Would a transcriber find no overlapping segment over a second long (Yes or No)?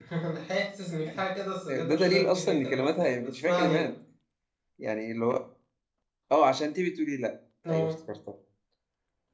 No